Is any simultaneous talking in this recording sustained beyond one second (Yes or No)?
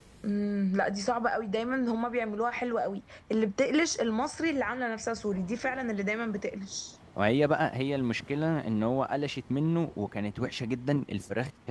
No